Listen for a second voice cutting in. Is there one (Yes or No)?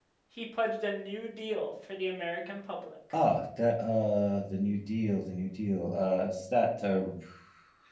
No